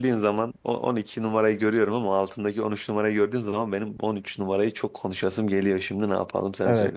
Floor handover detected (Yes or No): Yes